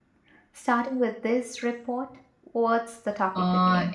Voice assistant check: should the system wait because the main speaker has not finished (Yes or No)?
No